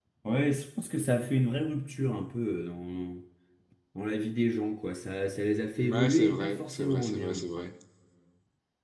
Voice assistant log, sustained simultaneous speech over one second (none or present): present